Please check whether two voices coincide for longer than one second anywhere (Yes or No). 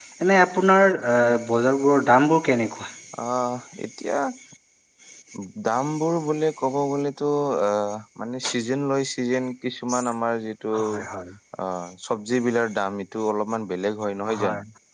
No